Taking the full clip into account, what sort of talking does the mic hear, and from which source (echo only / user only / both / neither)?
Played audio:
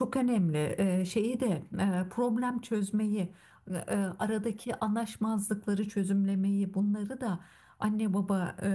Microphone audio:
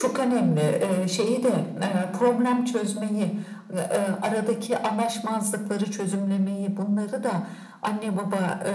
echo only